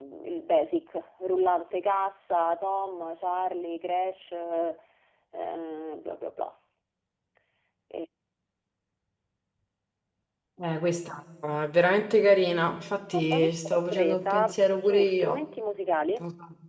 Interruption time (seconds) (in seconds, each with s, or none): 13.1 s